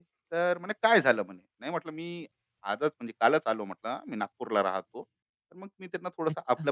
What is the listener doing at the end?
listening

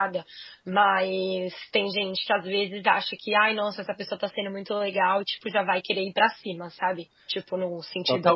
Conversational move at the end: taking over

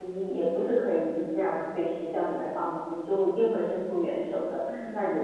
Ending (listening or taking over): listening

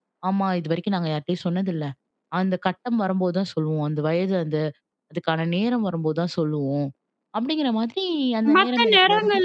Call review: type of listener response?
taking over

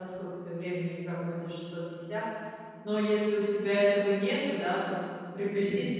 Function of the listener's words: listening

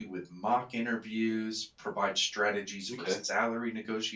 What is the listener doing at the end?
listening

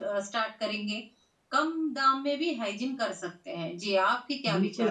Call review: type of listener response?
taking over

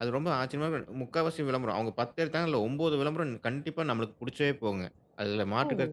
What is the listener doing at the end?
listening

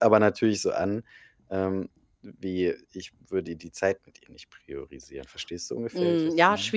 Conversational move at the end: taking over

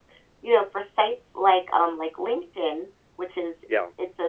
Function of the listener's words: listening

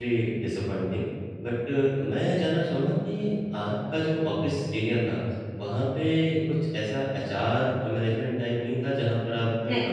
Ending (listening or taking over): listening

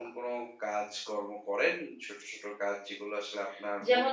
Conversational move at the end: taking over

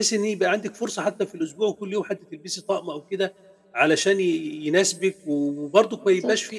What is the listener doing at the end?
listening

